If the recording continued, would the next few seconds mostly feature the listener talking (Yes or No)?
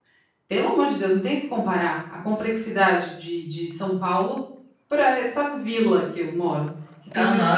No